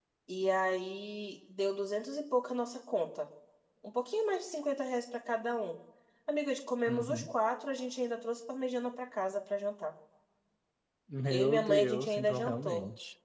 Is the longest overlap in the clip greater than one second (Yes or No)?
Yes